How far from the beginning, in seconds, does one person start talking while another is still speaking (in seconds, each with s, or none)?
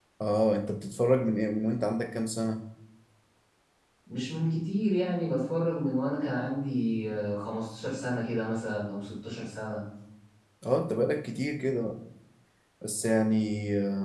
none